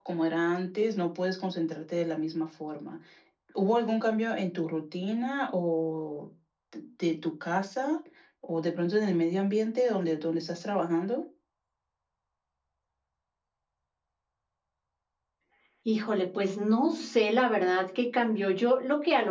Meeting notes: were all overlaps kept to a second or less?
Yes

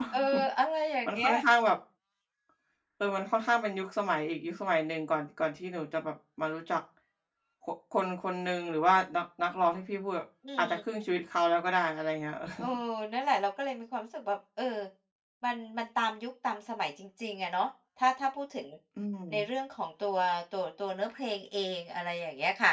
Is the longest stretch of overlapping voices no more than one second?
Yes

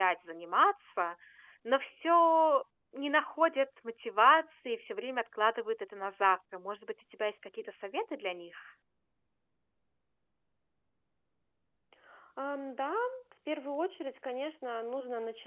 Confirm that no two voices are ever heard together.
Yes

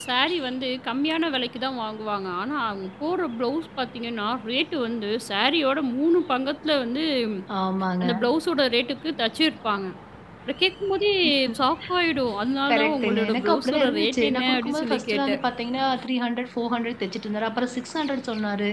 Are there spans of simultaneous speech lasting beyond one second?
Yes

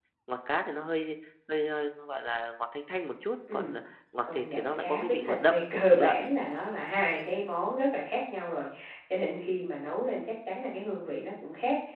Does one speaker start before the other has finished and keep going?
Yes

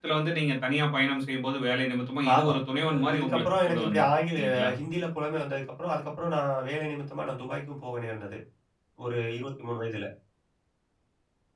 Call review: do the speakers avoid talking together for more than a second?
No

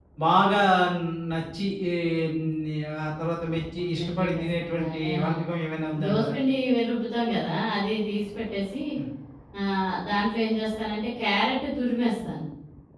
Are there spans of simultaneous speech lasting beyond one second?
Yes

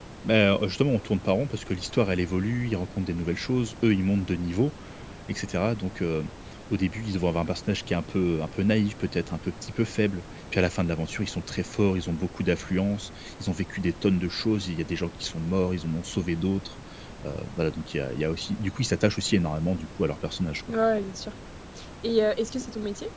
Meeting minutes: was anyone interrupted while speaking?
No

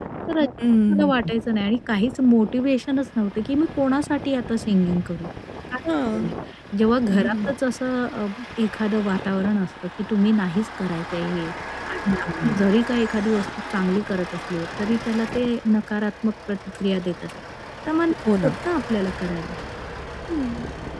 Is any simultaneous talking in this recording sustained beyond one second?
No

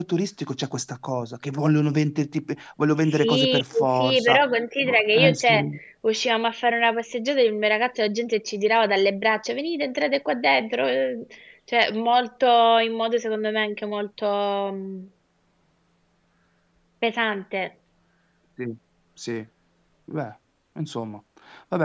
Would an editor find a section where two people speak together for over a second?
Yes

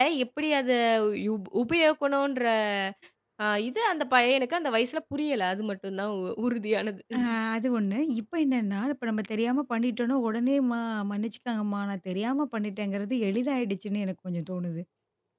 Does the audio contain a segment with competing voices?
No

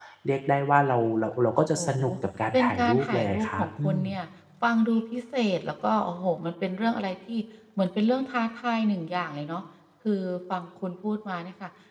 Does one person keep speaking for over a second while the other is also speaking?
Yes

